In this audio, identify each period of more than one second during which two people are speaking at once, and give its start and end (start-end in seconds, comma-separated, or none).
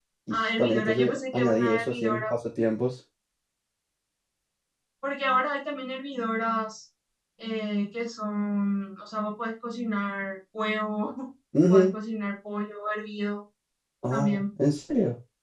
0.6-2.3